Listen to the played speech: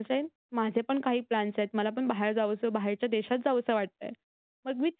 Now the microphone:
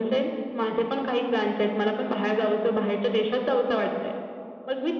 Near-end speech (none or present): none